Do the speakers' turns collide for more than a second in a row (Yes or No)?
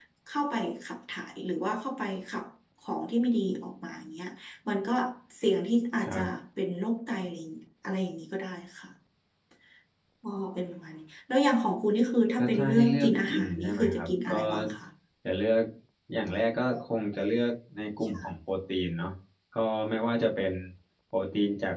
Yes